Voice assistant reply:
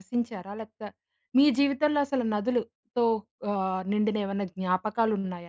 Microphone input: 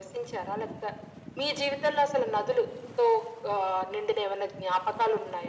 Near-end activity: none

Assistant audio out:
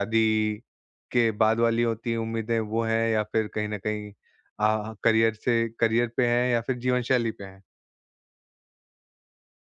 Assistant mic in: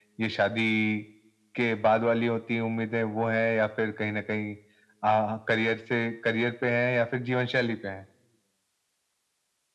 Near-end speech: none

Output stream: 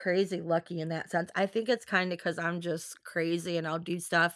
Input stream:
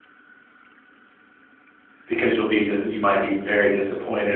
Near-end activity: present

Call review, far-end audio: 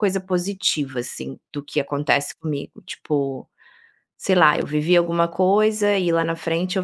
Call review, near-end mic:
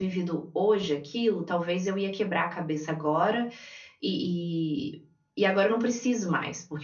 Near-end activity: present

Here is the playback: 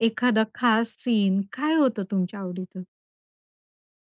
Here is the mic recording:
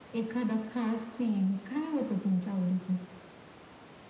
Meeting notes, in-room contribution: none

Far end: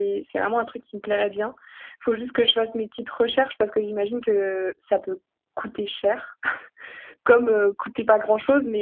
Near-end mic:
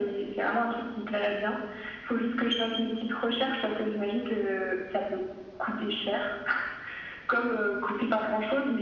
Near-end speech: none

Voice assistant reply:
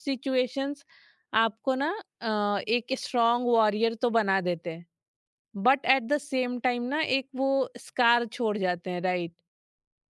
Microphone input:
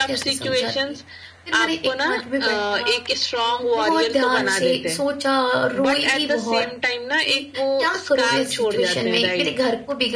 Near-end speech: present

